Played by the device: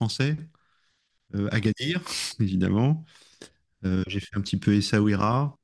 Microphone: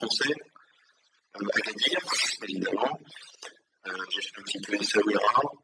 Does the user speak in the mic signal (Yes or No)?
No